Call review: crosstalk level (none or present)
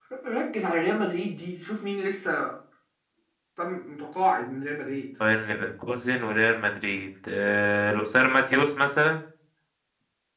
none